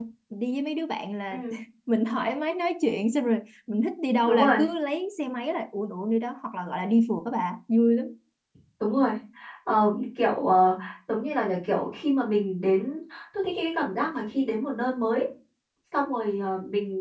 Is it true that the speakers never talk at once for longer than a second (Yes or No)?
Yes